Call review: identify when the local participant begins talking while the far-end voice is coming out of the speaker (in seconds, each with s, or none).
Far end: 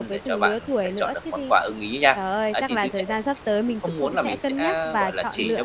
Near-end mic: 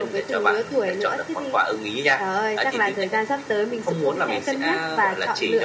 none